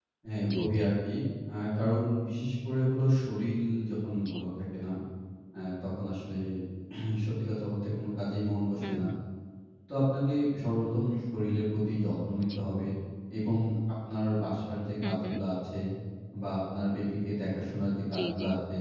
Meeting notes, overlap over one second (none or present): none